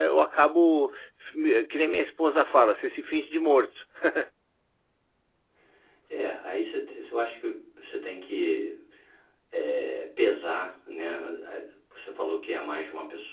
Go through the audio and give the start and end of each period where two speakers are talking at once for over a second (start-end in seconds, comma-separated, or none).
none